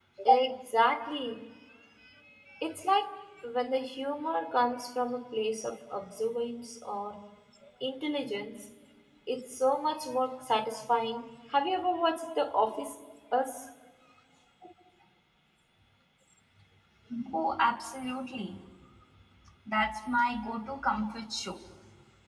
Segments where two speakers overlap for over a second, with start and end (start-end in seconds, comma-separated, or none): none